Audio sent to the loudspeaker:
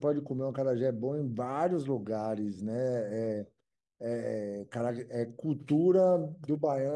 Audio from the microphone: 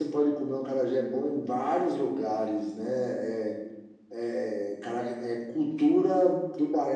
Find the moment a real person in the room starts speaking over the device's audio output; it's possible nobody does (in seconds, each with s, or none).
none